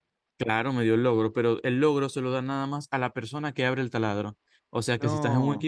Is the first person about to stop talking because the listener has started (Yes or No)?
No